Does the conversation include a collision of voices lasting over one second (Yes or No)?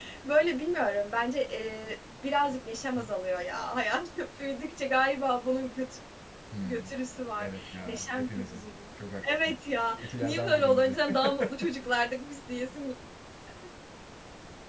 Yes